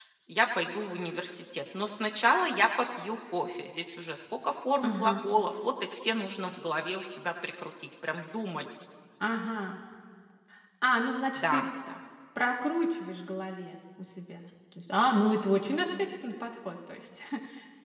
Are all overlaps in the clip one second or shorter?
Yes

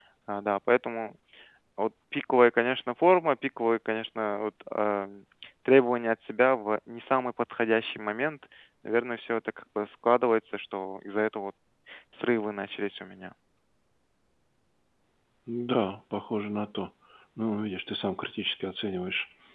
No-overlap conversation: Yes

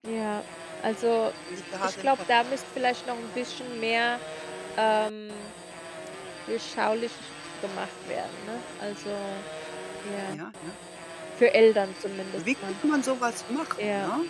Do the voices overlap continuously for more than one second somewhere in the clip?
No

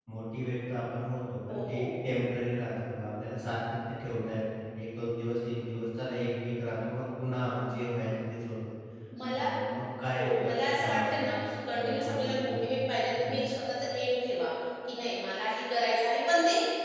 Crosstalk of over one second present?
Yes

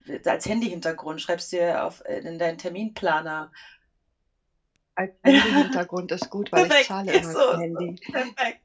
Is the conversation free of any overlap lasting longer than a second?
No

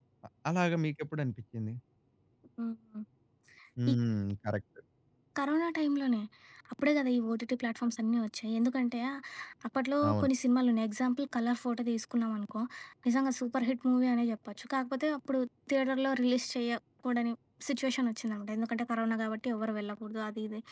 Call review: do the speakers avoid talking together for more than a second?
Yes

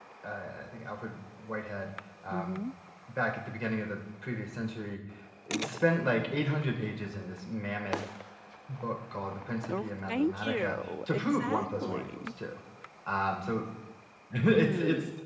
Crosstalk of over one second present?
Yes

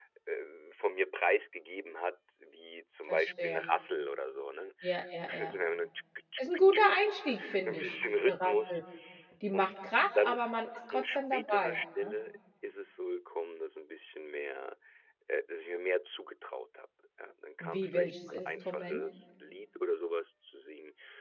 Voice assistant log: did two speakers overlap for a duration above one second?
Yes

